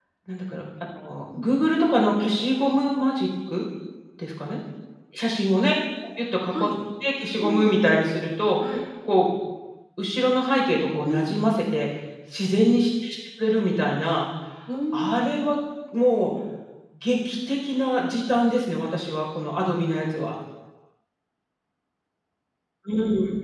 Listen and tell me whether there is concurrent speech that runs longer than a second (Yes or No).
No